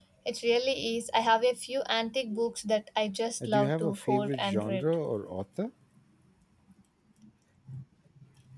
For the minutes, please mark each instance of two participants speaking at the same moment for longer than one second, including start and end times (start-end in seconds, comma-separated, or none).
3.4-4.8